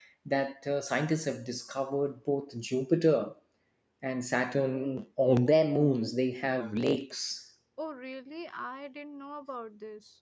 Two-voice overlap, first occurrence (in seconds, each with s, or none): none